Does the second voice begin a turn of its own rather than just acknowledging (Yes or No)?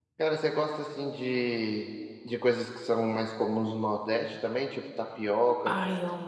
Yes